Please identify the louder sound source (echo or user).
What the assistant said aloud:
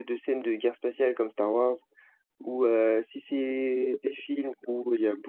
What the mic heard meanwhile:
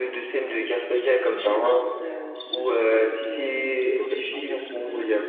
echo